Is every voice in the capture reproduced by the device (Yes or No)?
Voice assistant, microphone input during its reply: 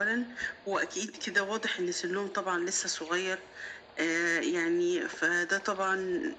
Yes